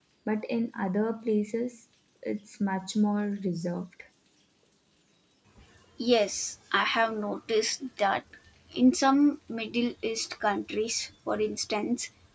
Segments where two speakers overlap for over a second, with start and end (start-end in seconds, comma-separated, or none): none